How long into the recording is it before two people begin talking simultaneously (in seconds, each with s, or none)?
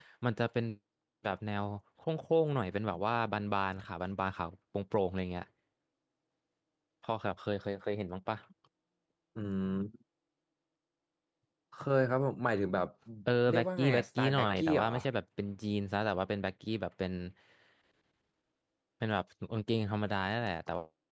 13.5 s